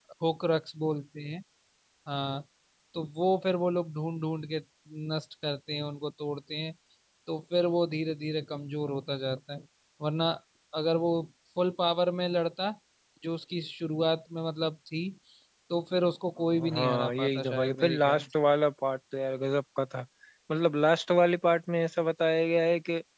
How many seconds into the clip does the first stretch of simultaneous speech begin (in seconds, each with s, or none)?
16.5 s